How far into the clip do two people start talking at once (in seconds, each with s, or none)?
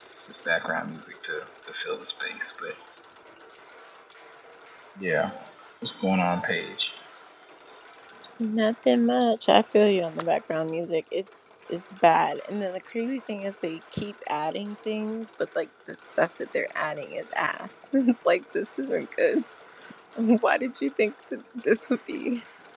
none